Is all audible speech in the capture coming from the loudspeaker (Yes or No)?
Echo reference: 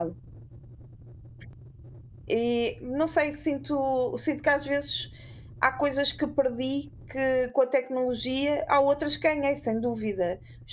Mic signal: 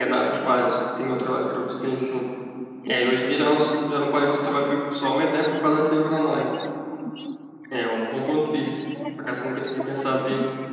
No